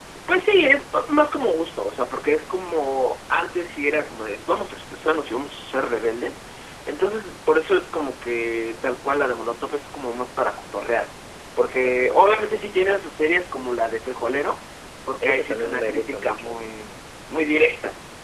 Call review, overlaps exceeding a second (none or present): present